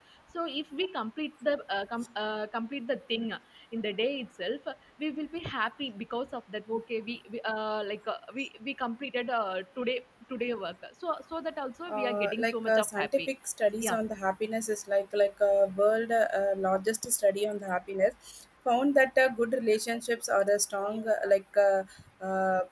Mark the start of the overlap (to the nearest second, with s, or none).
12 s